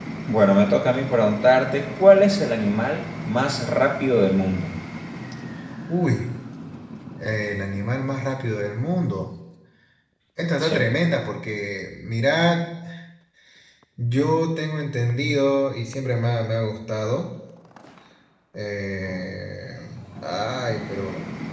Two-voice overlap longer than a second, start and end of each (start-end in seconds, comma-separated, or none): none